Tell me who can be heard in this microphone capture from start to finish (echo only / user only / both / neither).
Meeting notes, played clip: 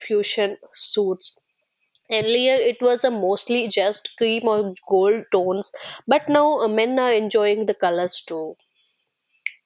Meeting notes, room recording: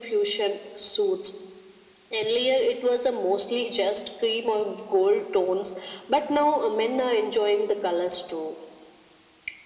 echo only